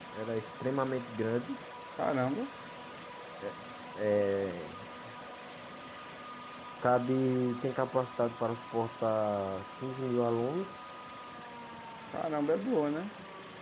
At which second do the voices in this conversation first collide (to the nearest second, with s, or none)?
none